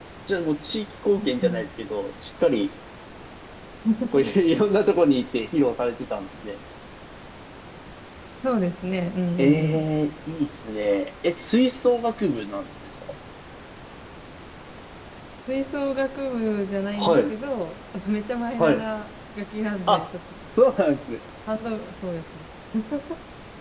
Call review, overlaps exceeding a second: none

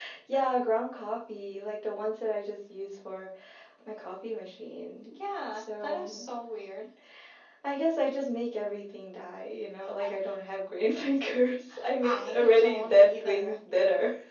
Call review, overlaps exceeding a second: present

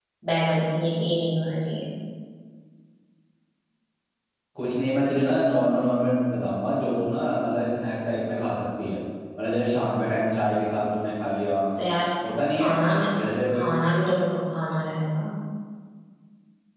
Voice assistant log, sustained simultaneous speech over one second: none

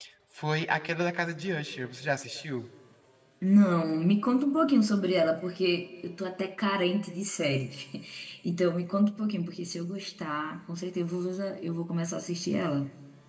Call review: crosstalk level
none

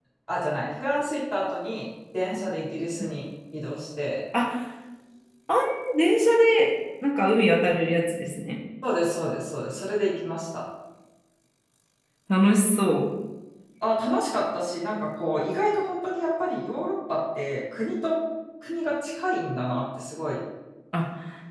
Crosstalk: none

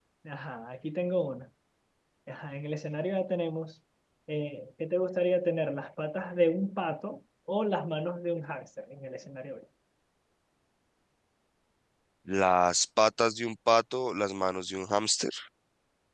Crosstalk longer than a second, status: none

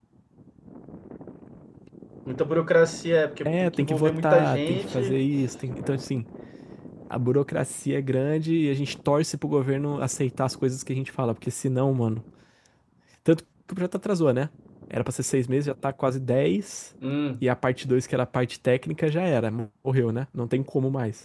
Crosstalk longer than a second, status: present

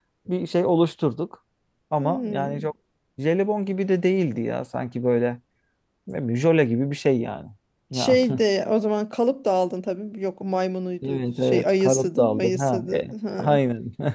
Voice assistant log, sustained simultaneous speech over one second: present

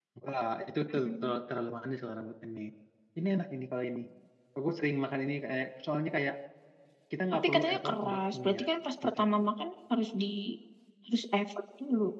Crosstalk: present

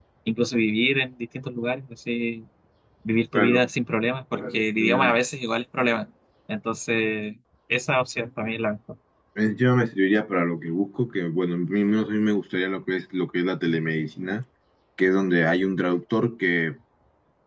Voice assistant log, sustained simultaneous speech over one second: none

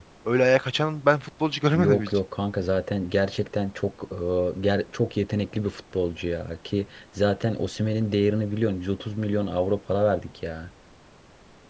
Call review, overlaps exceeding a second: none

